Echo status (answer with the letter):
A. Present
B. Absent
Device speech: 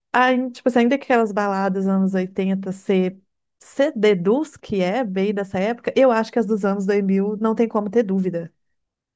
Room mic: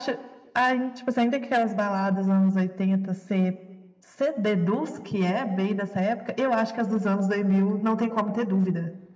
A